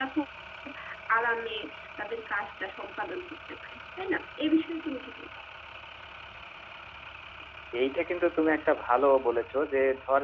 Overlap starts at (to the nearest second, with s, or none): none